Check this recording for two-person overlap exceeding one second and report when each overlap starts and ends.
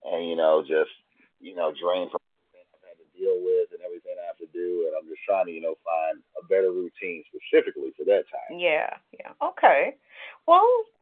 none

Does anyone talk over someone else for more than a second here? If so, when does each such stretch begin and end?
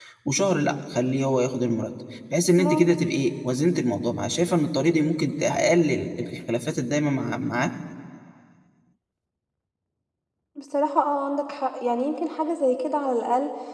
none

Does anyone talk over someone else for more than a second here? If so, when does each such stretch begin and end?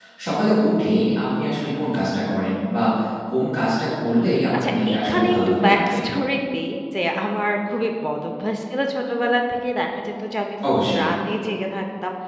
4.6-6.0

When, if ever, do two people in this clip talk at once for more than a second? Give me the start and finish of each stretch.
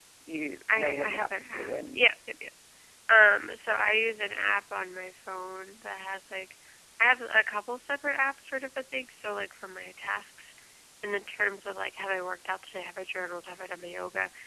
0.7-2.0

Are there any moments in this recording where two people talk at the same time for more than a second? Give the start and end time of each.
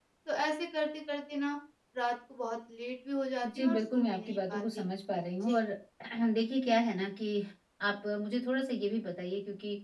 3.4-4.8

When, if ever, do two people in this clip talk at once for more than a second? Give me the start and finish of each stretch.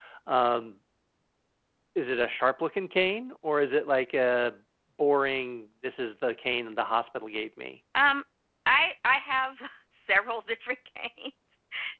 none

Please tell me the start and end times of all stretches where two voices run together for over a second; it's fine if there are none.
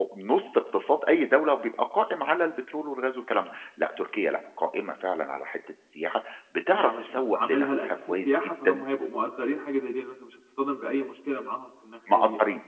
6.7-8.8

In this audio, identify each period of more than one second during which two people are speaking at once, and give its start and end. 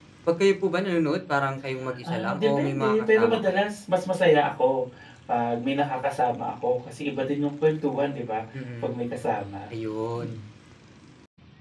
2.1-3.6

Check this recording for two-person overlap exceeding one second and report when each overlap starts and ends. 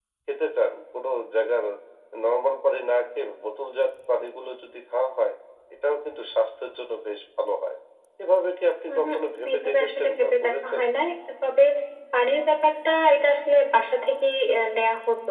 9.5-10.8

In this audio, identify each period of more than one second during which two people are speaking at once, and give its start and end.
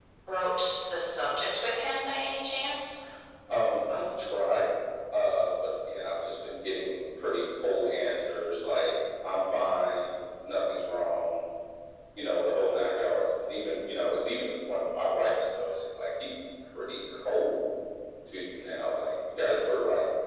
none

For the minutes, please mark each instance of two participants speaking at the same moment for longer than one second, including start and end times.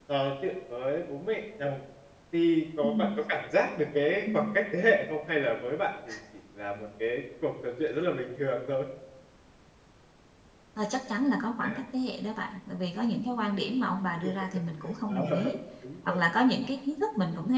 none

